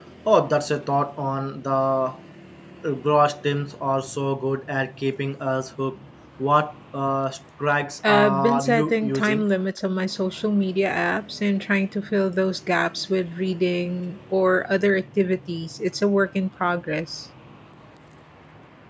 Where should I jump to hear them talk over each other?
8.0 s

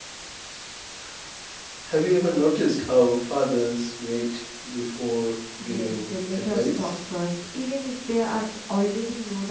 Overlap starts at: 5.6 s

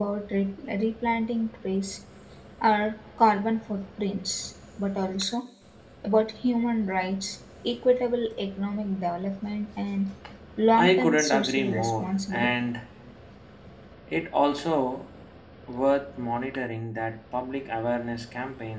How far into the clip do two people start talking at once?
10.7 s

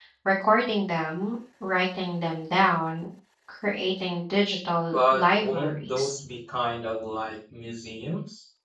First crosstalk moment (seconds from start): 4.9 s

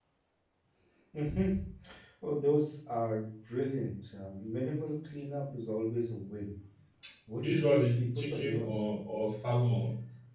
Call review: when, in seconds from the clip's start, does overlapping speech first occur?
7.4 s

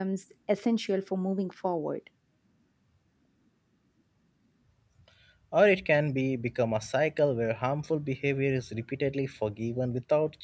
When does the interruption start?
none

